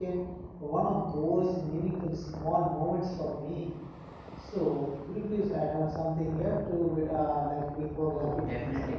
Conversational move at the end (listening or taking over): taking over